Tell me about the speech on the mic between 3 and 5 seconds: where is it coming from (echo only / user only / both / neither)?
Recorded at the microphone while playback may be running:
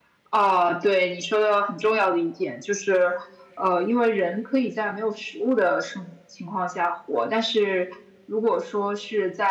echo only